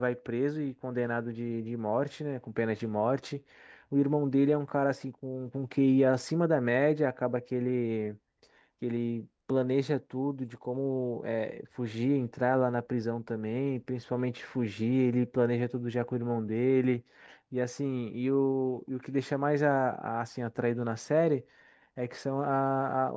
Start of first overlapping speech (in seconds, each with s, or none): none